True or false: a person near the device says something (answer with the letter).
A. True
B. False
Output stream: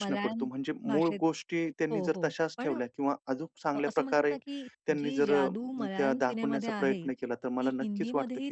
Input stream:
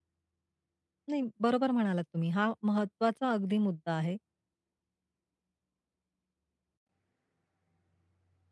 A